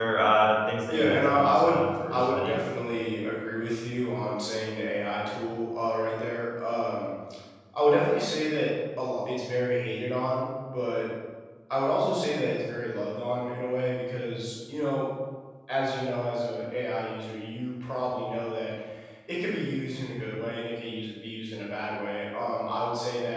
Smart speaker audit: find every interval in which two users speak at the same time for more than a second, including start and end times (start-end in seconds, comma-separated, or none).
0.9-2.6